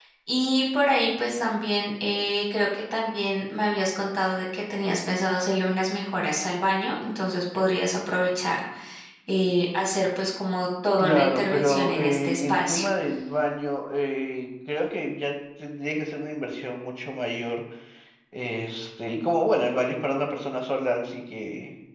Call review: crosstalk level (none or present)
present